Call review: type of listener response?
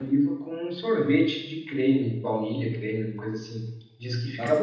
taking over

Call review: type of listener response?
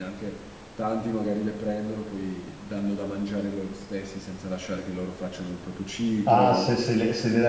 taking over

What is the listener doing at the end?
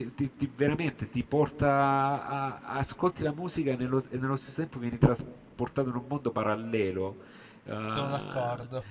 listening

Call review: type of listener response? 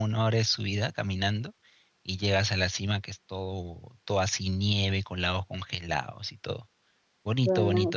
taking over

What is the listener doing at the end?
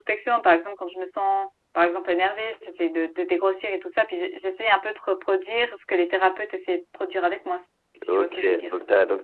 taking over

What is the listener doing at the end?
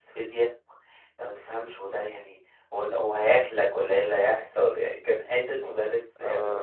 taking over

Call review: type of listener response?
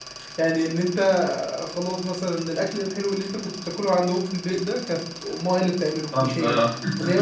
listening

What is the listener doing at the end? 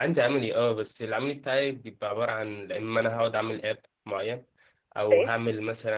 listening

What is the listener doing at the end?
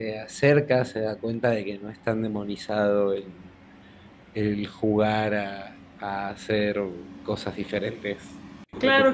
taking over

